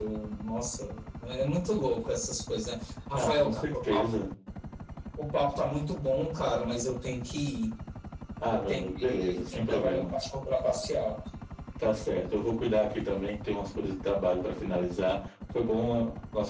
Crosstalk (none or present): present